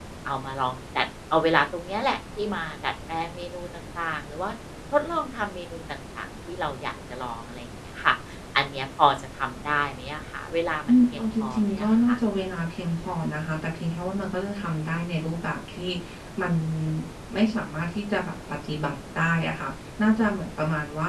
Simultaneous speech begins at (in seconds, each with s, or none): 10.9 s